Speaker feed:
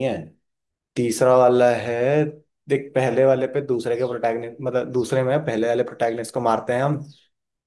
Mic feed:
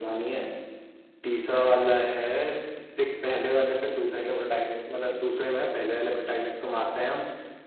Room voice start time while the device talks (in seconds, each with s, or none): none